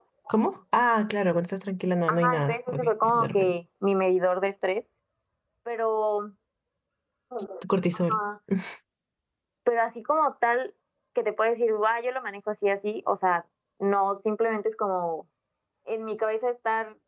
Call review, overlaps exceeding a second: present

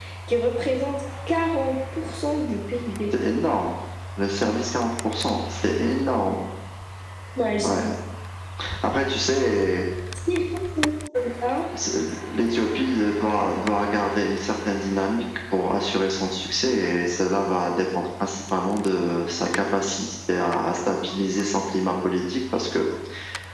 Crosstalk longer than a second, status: none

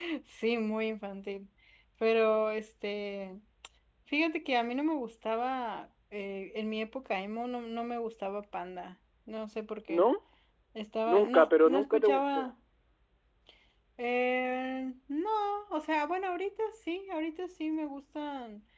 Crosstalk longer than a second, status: present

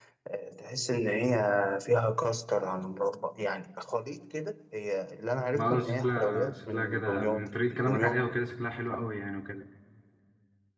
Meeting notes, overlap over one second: present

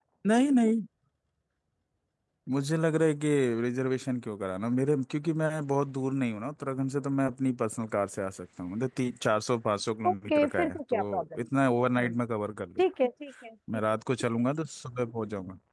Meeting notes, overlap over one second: present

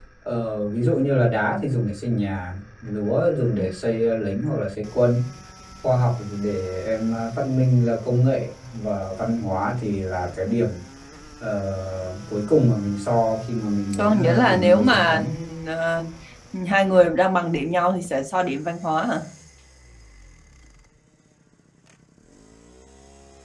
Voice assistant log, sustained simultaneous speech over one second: present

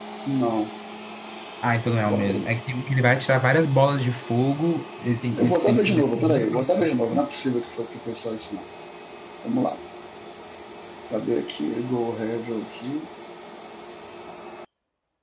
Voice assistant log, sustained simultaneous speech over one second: present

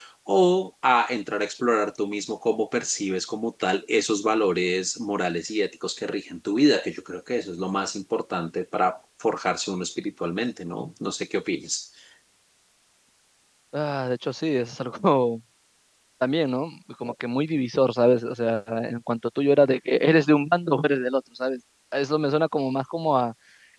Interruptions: none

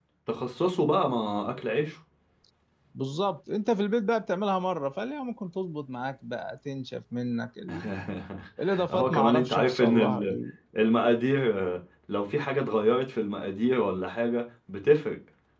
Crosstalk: present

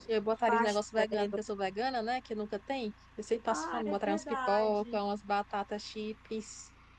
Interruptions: present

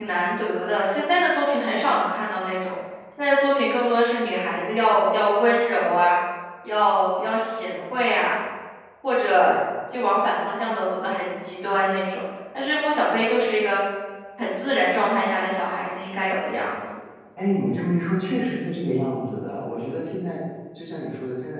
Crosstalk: none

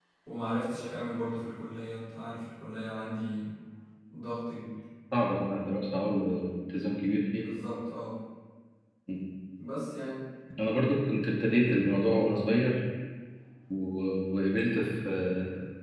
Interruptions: none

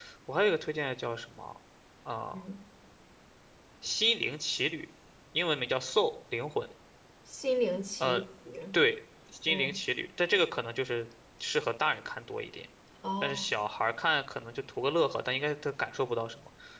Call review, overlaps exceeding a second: none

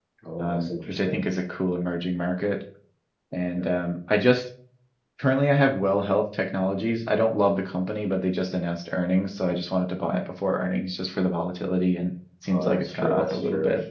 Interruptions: present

